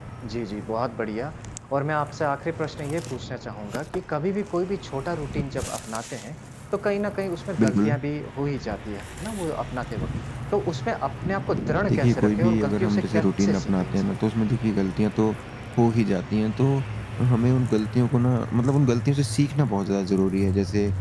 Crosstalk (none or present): present